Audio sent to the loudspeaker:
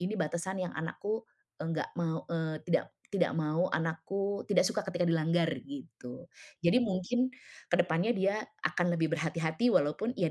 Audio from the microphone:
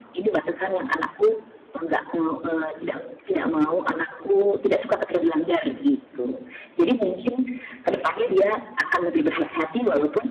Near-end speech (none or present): none